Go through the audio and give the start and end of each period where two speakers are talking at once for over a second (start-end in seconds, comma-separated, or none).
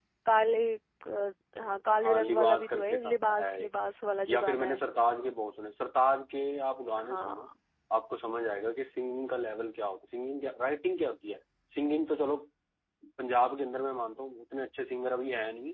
2.0-3.7